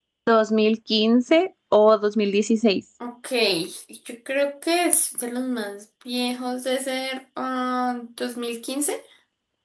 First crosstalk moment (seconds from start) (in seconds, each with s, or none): none